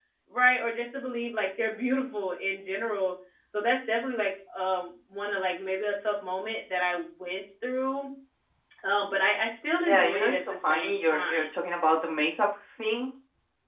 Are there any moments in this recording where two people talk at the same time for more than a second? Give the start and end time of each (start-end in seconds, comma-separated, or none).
9.8-11.5